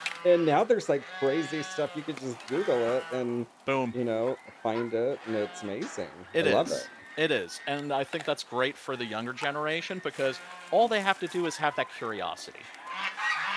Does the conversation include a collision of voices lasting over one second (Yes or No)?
No